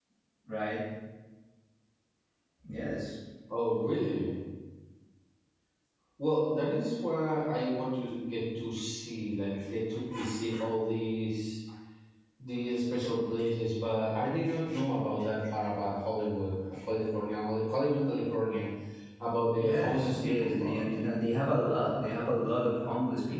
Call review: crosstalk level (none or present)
present